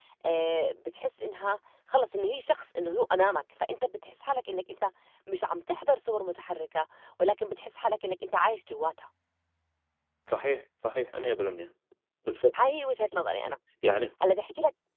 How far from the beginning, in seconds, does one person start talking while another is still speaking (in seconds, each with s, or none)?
none